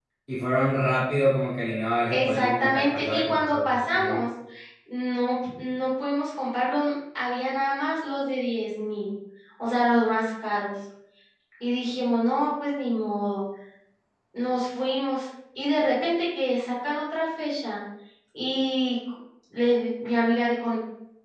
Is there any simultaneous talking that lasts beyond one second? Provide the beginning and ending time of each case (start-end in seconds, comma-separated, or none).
2.1-4.2